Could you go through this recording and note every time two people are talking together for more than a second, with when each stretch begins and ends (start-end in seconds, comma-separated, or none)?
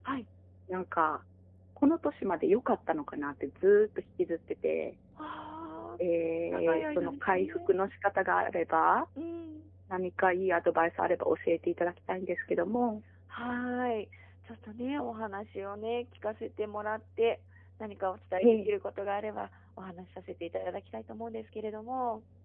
6.5-7.7